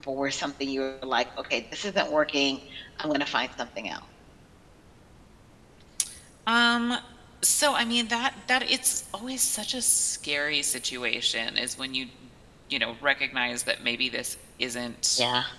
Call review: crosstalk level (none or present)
none